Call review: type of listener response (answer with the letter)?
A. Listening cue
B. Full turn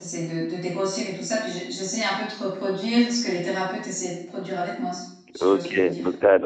B